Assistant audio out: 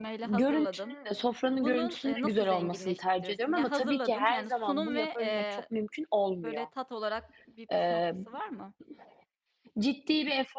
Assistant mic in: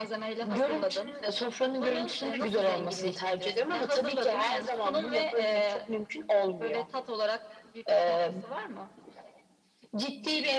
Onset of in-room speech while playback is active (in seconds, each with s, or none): none